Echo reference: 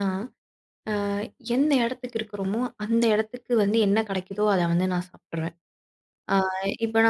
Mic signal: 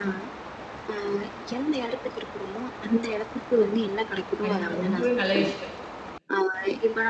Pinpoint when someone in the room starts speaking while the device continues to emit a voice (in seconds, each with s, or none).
4.4 s